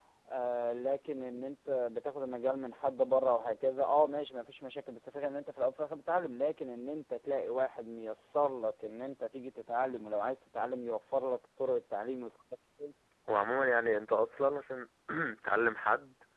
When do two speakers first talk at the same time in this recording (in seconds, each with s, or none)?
none